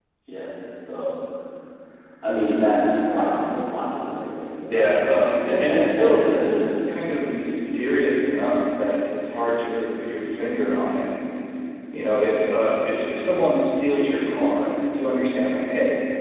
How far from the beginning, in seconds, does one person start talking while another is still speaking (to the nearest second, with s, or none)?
5 s